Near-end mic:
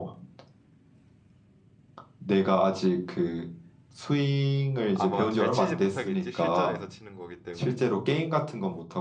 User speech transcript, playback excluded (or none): 아마 잘 치지 못하겠지? 실전에서 치는 거기 때문에.